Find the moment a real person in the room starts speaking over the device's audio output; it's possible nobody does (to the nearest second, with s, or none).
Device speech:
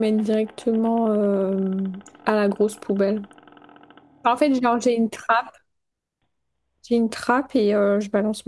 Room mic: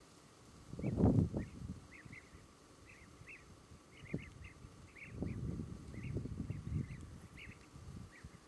none